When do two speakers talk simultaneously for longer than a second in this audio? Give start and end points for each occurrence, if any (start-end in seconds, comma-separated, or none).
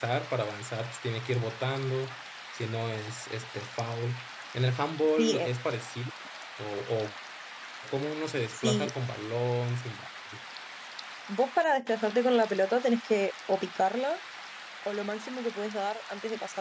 none